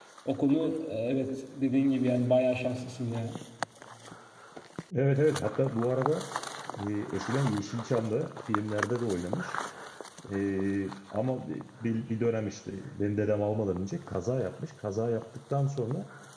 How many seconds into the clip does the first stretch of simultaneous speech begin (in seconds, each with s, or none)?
none